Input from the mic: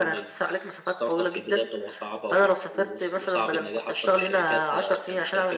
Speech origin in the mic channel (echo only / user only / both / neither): echo only